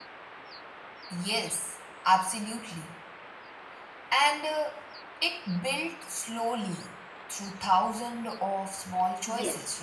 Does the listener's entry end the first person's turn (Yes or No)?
Yes